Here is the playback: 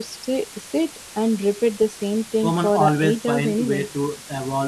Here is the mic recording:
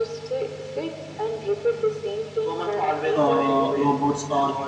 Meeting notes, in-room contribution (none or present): present